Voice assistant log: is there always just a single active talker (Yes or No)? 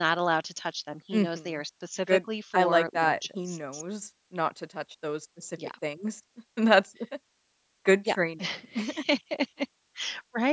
No